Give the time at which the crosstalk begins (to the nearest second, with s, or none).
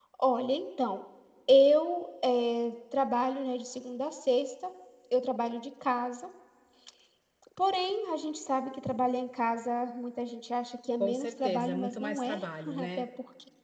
11 s